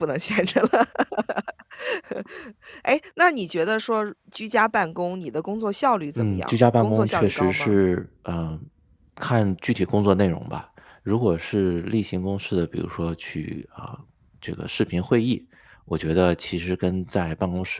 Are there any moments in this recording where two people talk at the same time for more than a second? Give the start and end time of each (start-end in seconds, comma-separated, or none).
6.2-7.8